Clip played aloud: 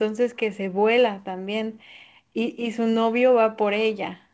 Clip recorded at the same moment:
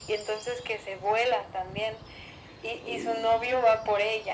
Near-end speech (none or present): none